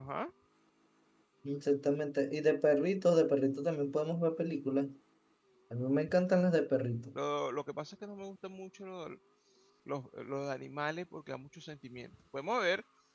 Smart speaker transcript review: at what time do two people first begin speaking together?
none

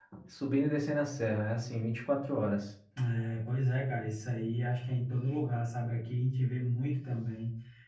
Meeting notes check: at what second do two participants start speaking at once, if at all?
none

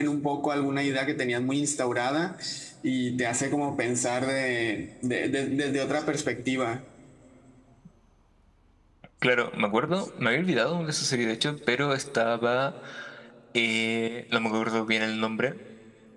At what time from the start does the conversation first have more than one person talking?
none

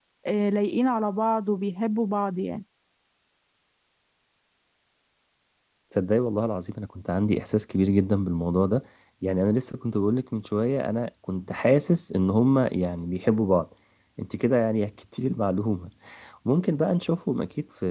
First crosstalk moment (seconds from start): none

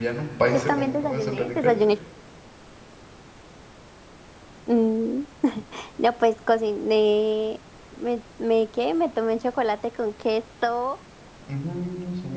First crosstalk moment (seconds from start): 1 s

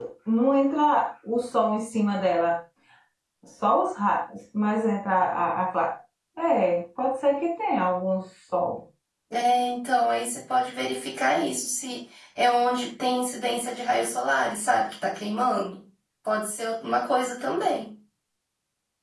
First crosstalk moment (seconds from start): none

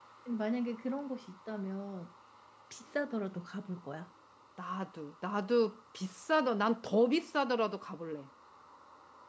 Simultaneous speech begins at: none

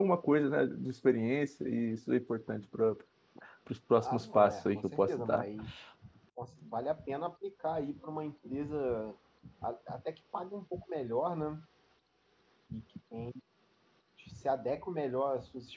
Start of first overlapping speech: 4 s

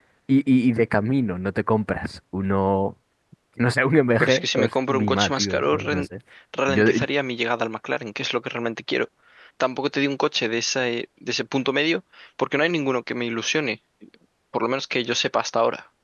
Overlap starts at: 4 s

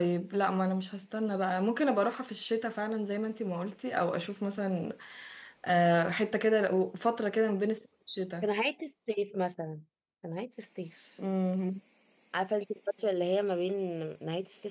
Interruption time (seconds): none

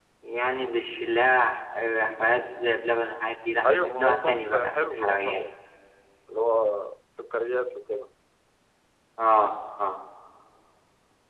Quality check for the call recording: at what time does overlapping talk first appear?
4 s

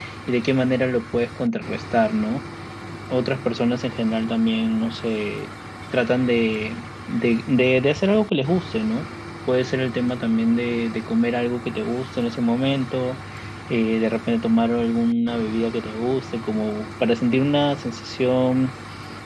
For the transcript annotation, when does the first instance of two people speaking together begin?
none

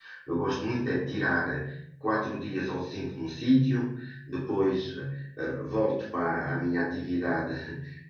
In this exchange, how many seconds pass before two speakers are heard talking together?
none

